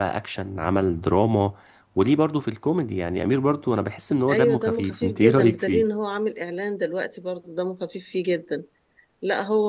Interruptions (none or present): present